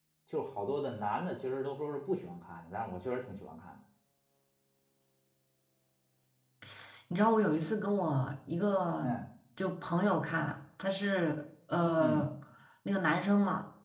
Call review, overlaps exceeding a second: none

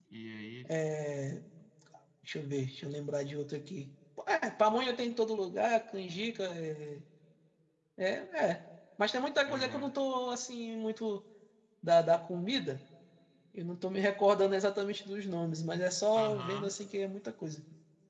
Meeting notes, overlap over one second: none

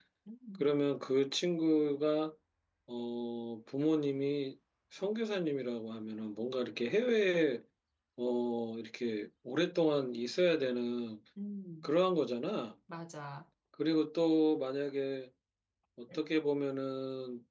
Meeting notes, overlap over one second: none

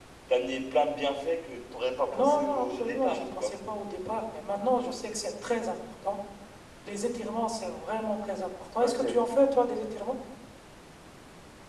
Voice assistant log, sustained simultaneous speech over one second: present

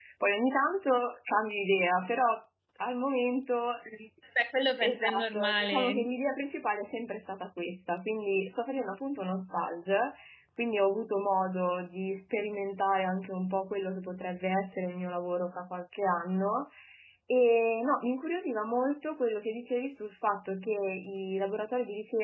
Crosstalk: present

